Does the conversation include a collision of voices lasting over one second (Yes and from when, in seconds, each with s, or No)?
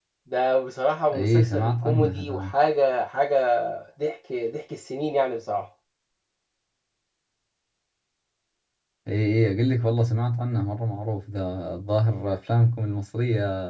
Yes, from 1.1 s